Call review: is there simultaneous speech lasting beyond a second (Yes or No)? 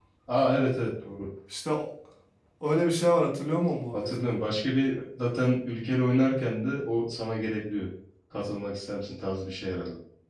No